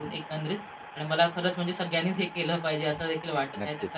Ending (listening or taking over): listening